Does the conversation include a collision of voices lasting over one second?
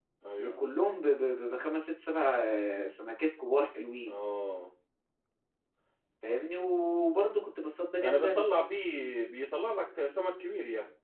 No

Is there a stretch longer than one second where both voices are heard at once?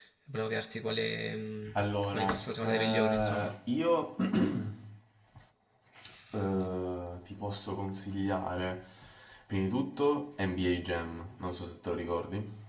Yes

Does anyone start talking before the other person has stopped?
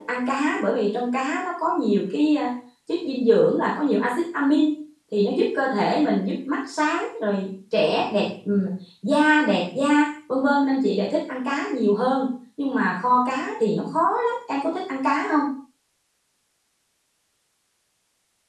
No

